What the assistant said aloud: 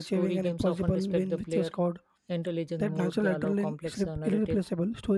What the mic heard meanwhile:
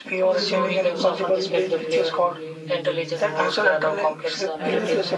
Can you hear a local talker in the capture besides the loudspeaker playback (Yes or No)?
Yes